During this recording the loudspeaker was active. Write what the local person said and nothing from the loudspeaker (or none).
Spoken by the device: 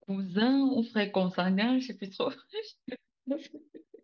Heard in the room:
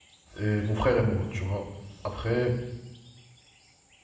et mon frère et moi, tu vois. Après,